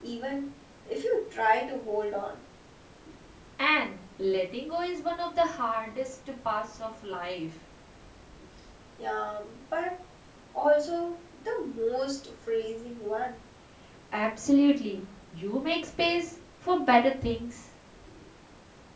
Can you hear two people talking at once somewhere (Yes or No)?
No